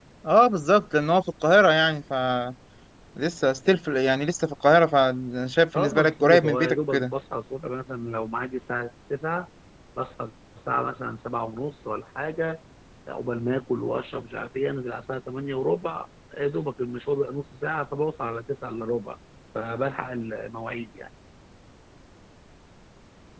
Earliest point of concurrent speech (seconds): 5.7 s

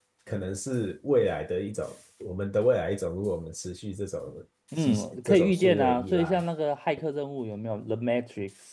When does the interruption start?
4.7 s

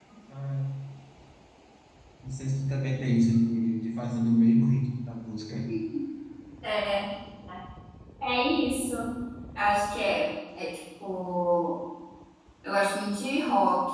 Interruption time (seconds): none

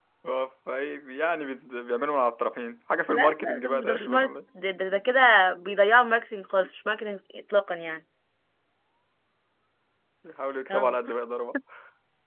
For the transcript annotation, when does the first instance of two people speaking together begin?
3.1 s

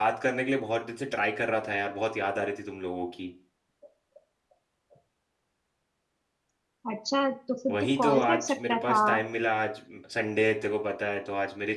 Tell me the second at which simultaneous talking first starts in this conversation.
7.7 s

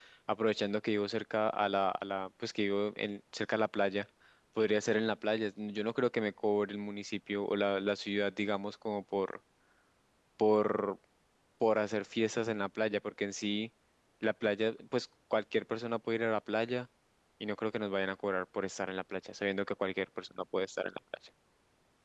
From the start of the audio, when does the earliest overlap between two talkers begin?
none

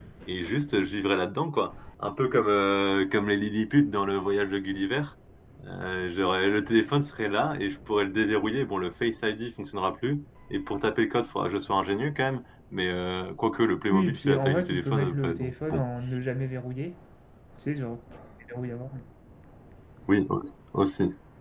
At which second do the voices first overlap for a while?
13.9 s

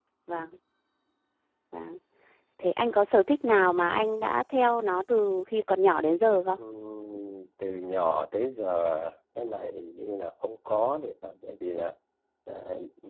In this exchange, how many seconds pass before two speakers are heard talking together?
none

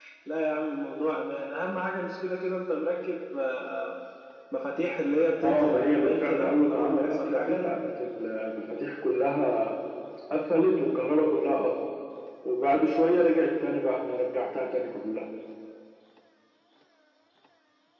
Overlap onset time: 5.4 s

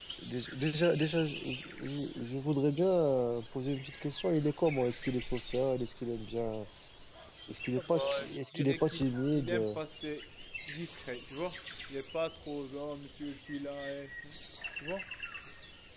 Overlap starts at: 7.8 s

